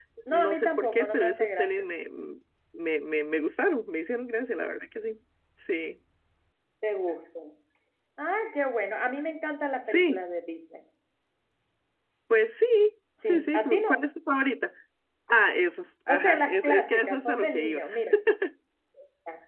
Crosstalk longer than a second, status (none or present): present